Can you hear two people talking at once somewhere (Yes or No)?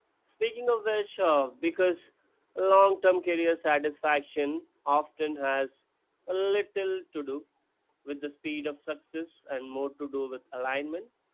No